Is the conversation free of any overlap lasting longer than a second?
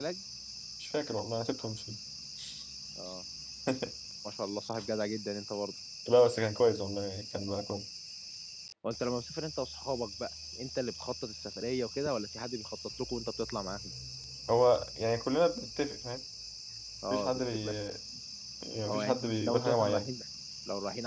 No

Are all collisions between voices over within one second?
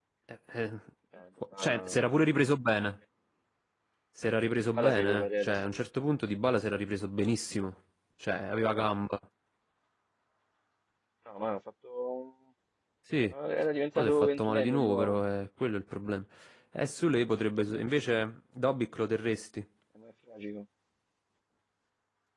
No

